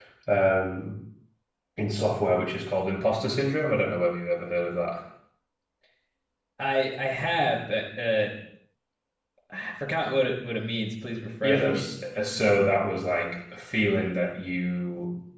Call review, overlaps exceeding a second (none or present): none